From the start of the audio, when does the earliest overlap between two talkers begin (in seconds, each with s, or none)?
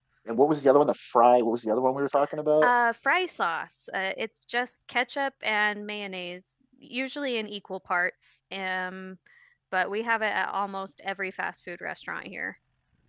none